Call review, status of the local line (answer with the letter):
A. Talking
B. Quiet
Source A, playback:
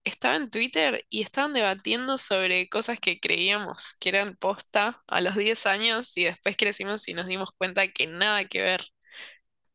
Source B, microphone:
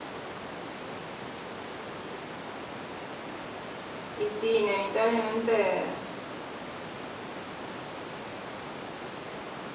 A